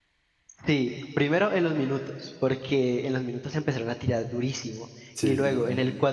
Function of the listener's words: listening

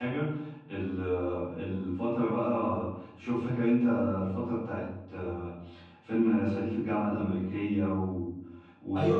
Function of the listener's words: taking over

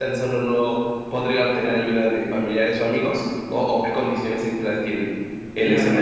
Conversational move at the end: taking over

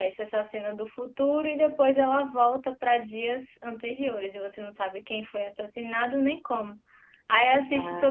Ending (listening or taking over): listening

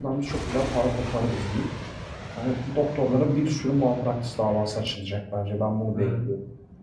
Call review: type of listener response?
taking over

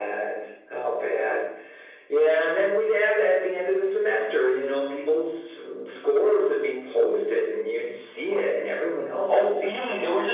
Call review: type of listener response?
taking over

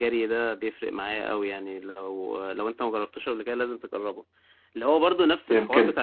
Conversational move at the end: listening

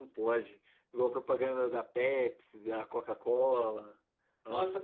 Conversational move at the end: taking over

